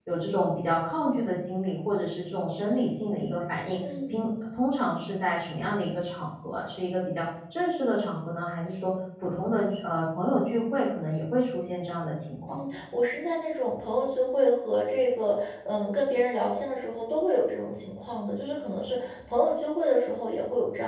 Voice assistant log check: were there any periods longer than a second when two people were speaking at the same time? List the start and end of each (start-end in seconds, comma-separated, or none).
none